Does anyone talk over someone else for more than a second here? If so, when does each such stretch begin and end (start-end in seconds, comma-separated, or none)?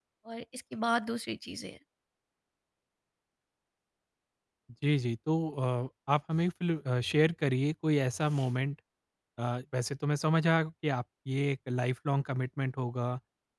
none